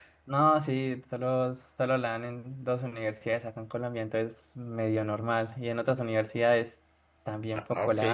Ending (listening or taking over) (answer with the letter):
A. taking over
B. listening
A